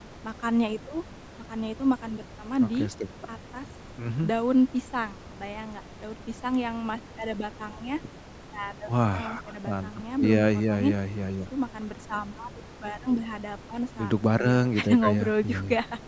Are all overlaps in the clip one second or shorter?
No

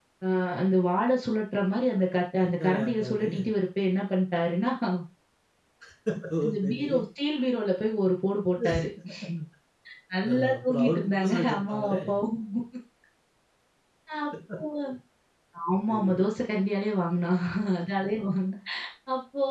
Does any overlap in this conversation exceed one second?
Yes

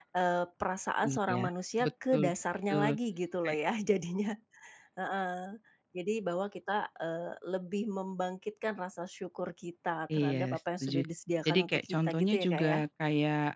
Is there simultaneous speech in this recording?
Yes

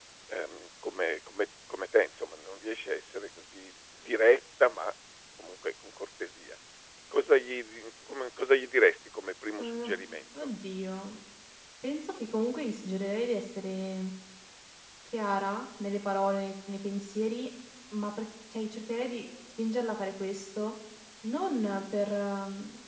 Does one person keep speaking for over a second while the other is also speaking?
No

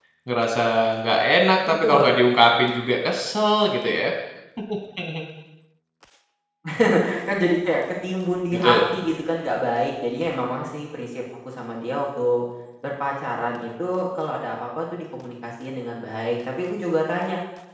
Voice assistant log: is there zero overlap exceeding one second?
Yes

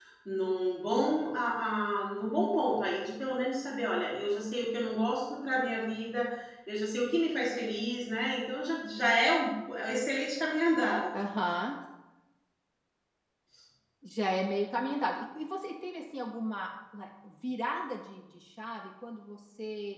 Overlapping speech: No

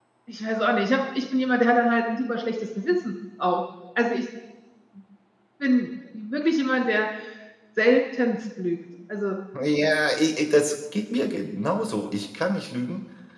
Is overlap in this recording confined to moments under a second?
Yes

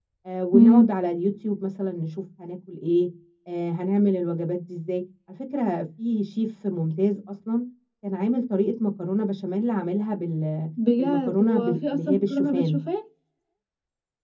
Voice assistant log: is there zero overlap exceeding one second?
No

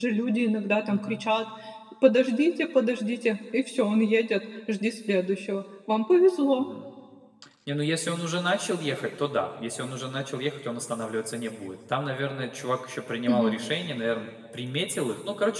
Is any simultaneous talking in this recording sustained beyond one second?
No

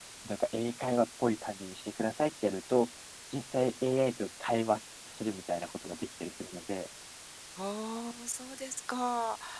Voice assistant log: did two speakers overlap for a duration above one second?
No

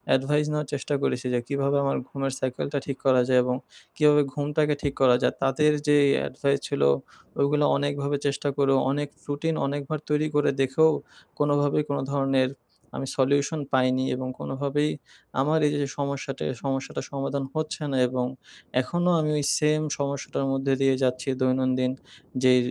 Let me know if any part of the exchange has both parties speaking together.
No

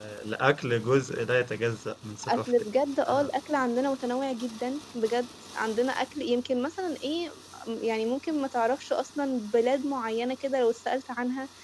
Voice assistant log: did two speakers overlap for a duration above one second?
No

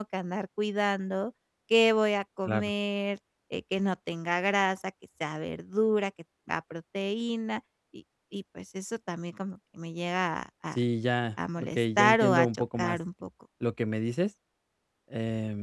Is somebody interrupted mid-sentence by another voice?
Yes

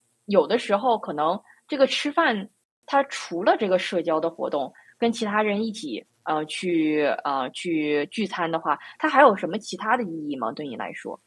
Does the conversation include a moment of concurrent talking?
No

